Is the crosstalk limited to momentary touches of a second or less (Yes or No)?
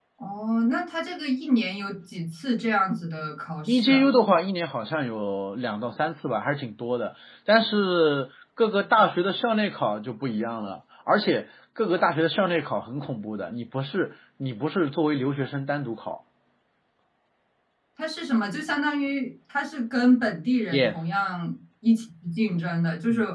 Yes